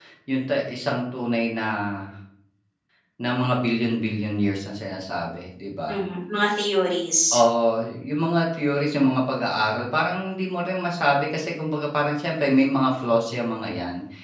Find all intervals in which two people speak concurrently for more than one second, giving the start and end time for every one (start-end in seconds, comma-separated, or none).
none